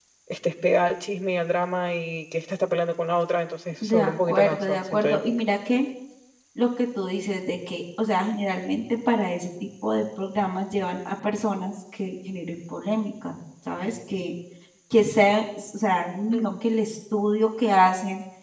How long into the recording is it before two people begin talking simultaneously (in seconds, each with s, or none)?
3.8 s